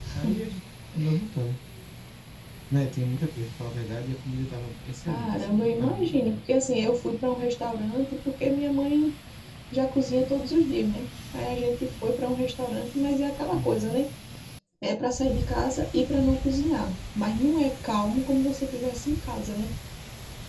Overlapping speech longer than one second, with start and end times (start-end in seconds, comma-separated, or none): 5.1-6.4